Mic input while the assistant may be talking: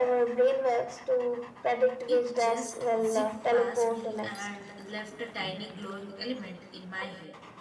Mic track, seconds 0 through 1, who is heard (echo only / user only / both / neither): echo only